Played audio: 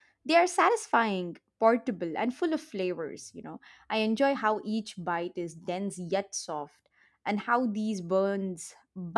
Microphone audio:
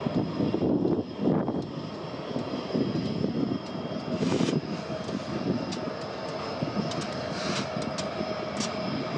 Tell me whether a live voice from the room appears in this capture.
No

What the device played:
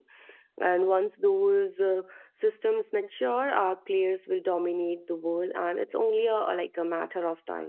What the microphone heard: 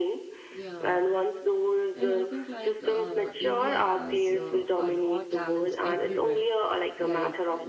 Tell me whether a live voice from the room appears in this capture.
Yes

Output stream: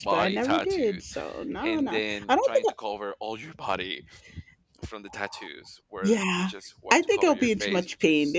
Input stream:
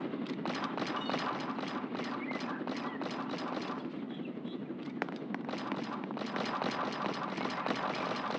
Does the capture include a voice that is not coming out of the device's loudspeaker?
No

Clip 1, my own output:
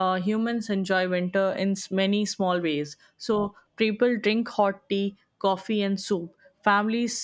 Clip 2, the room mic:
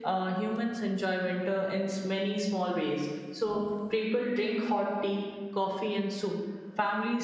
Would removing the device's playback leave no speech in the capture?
Yes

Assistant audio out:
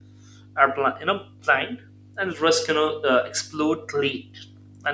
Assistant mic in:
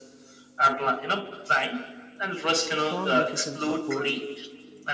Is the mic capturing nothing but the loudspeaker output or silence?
No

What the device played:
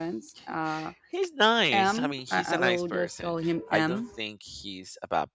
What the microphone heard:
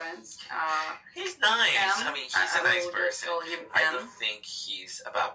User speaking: No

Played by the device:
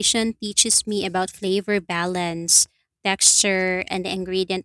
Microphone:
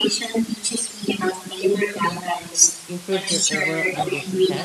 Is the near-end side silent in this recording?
No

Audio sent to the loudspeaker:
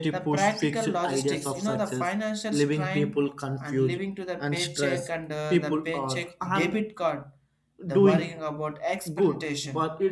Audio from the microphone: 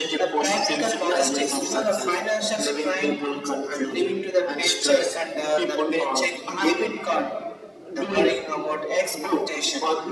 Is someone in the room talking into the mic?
No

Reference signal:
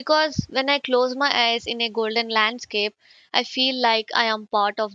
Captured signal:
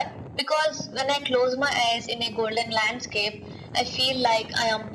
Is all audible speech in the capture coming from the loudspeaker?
Yes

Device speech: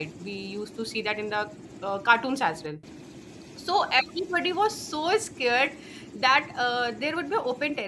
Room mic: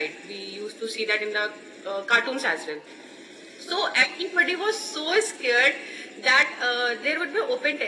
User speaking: No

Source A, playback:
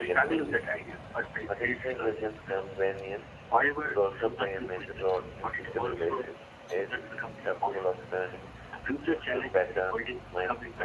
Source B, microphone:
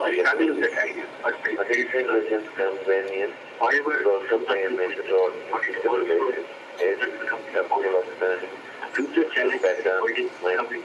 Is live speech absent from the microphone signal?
Yes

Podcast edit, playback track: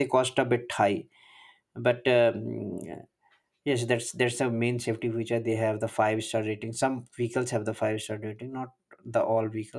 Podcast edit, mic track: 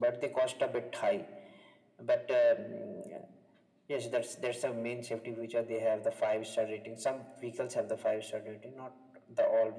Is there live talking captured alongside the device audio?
No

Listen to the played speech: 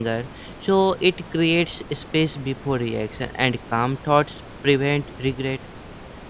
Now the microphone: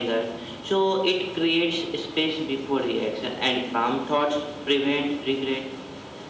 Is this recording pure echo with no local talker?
Yes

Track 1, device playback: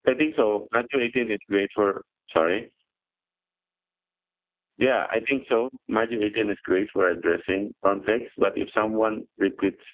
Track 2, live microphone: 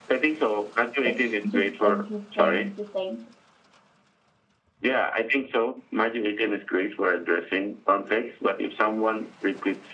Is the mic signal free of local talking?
No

